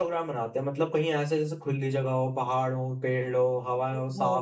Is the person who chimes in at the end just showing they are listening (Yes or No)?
No